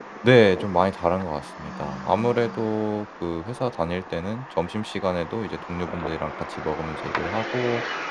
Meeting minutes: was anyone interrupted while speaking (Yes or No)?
No